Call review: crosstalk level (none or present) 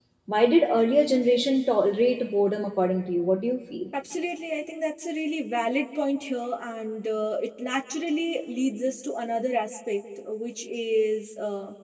none